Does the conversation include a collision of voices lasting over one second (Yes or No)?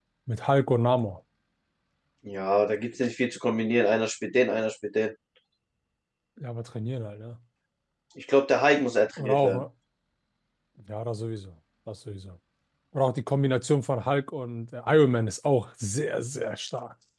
No